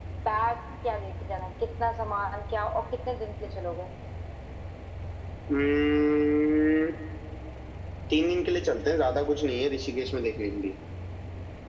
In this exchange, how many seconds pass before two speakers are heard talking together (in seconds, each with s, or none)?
none